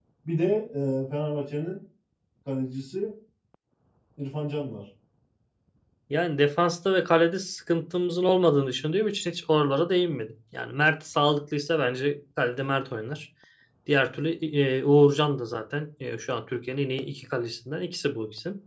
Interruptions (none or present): none